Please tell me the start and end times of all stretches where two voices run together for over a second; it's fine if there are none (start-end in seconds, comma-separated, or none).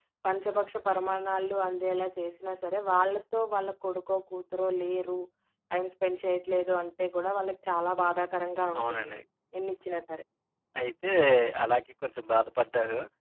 none